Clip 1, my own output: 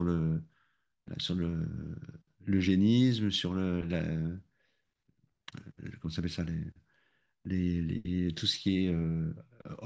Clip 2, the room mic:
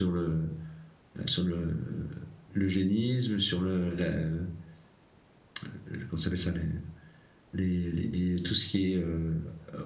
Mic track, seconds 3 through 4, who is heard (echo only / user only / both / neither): echo only